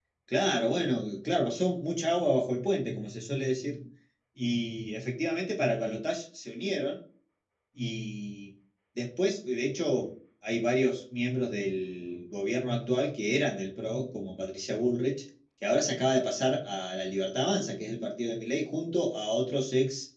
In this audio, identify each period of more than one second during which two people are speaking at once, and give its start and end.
none

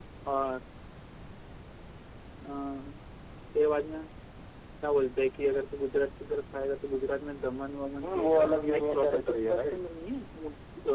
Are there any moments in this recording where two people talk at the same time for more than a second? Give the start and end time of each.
8.0-9.8

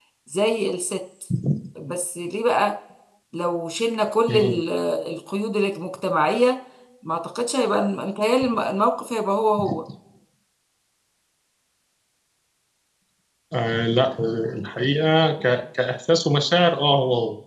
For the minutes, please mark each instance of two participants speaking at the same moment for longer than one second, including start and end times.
none

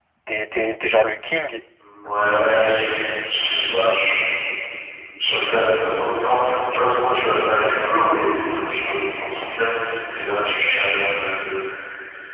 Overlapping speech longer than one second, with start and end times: none

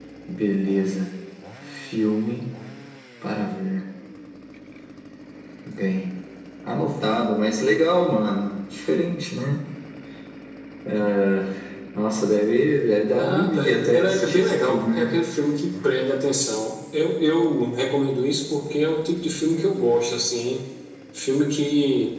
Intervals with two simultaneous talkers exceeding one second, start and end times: 13.2-15.1

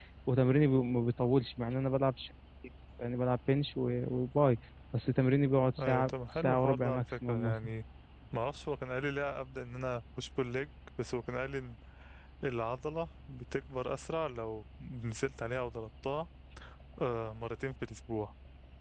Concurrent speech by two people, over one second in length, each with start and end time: 5.8-7.7

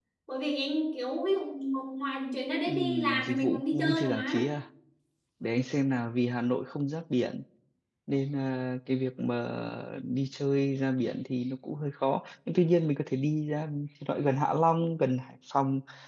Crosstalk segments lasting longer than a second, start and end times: 2.6-4.4

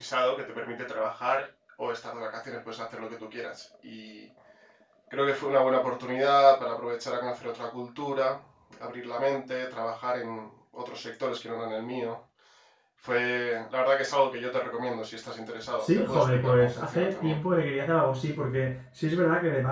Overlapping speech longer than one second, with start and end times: 15.8-17.4

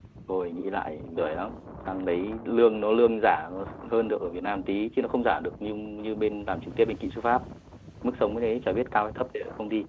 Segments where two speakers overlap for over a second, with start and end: none

